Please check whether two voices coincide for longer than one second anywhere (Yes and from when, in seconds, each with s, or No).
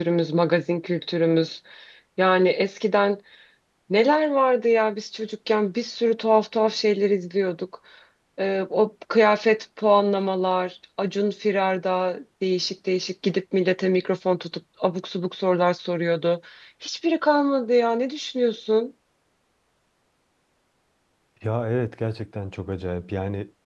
No